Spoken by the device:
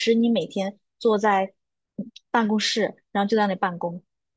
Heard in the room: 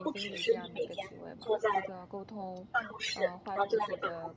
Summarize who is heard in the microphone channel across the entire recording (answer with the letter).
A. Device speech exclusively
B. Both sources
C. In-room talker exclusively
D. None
B